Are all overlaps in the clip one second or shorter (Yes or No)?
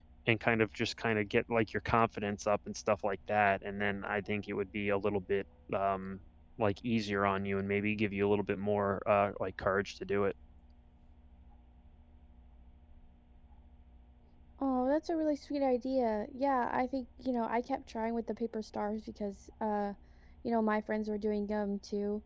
Yes